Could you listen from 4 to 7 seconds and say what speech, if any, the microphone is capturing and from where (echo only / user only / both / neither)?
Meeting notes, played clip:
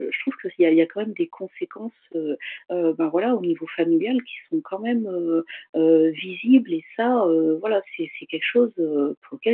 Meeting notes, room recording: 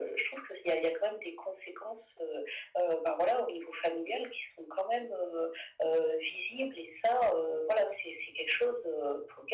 echo only